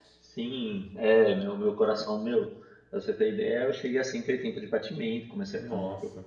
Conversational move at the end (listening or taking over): listening